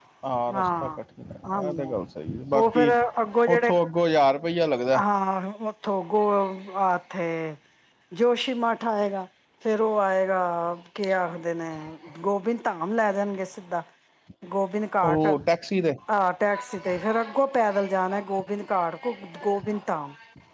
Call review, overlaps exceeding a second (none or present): none